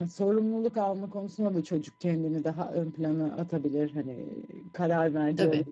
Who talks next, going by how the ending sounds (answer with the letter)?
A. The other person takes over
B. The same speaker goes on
B